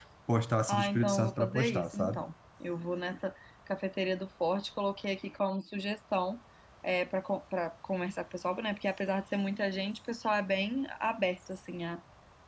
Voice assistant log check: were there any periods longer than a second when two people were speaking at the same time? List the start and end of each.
0.7-2.2

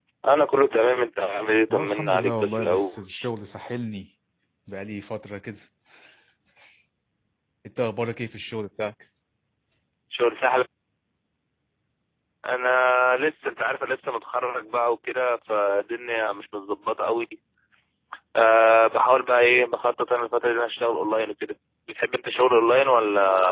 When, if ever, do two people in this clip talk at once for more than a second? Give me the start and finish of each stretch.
1.7-3.0

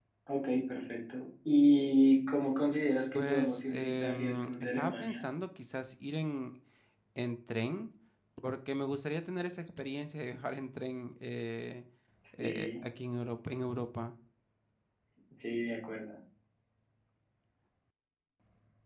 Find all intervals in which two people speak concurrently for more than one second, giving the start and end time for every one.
3.1-5.2

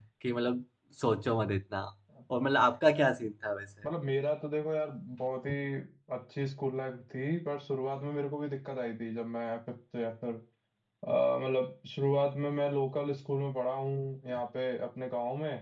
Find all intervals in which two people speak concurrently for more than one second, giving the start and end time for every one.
none

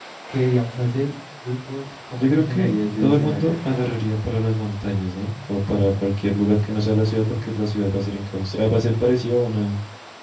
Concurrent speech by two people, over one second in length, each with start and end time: 2.2-3.5

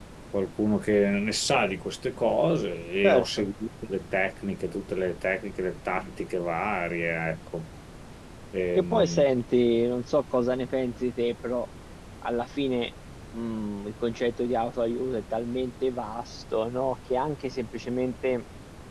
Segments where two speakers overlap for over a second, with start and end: none

